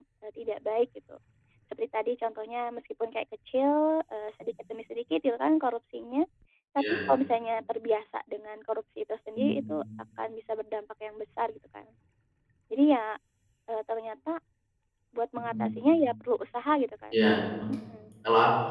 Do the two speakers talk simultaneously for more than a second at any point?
No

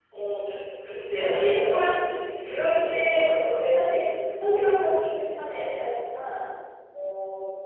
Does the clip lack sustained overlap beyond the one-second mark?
No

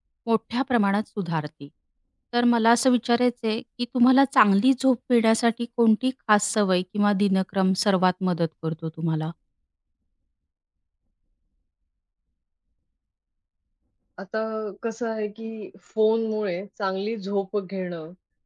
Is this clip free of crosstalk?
Yes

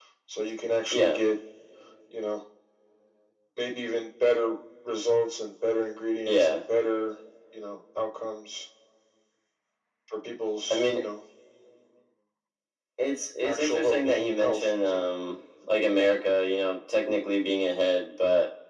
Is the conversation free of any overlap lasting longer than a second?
No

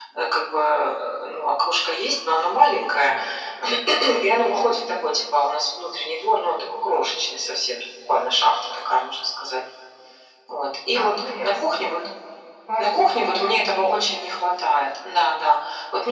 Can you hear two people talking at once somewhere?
Yes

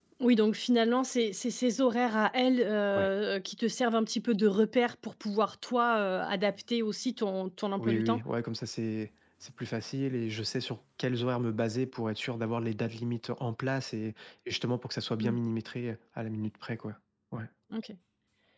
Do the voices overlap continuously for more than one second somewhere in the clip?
No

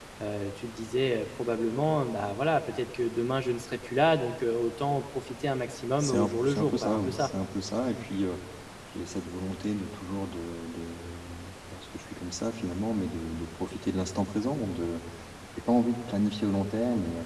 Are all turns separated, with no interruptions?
No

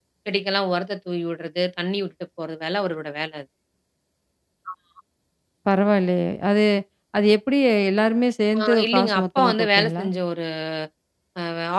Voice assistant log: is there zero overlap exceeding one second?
No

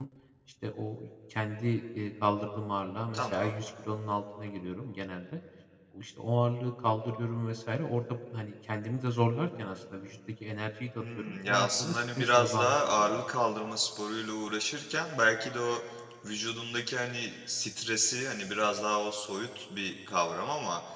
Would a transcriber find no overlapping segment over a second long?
No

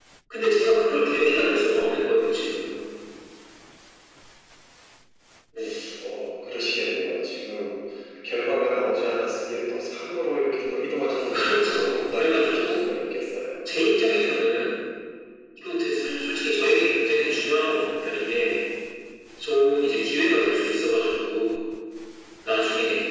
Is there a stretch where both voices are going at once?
Yes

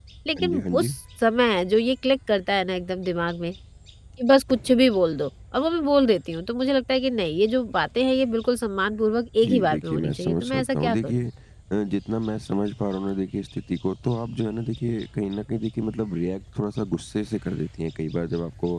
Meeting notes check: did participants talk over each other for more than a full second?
Yes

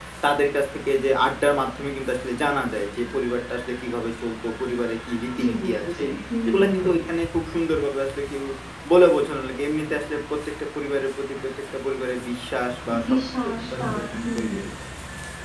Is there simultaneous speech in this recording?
Yes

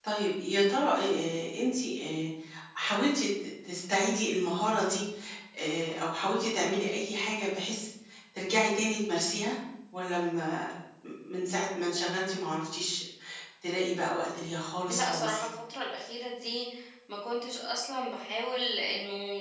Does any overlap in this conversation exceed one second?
No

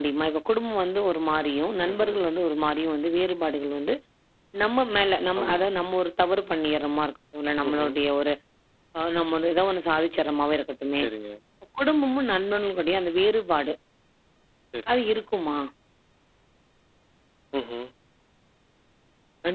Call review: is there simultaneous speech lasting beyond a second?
No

